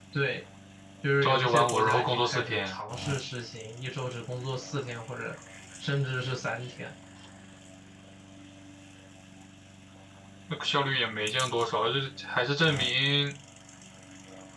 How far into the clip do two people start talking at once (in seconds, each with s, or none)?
1.2 s